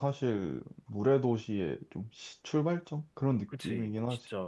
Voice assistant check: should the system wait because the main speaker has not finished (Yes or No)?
No